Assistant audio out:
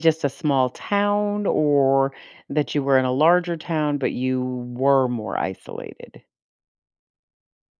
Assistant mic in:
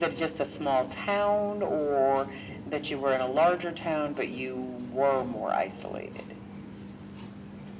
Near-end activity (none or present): none